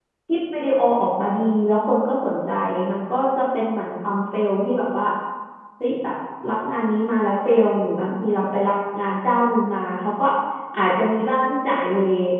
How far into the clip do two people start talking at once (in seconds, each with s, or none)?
none